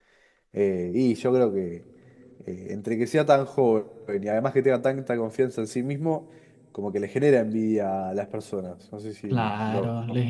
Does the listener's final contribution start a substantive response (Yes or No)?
Yes